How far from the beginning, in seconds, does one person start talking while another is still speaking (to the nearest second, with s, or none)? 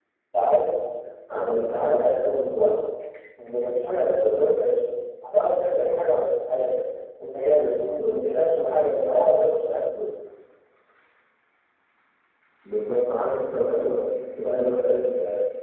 1 s